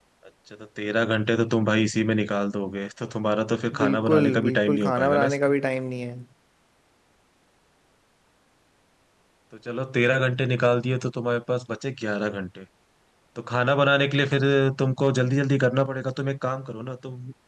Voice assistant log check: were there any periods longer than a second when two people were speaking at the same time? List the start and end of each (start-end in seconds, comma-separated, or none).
3.8-5.5